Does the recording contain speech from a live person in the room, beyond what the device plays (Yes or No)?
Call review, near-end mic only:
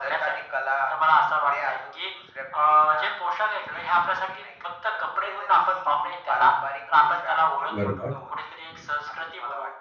Yes